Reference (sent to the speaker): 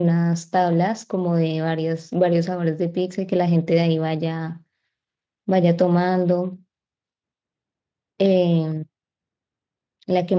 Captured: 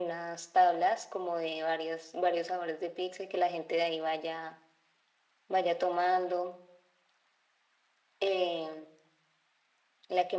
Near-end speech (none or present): none